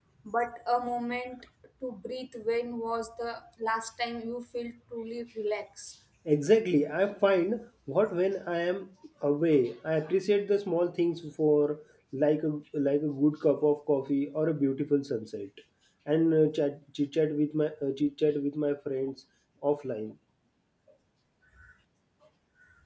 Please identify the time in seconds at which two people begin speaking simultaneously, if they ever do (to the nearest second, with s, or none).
none